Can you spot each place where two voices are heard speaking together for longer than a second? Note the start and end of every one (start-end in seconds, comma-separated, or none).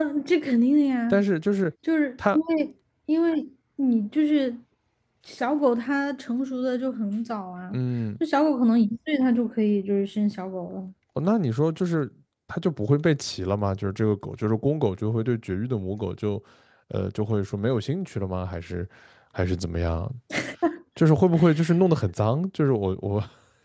none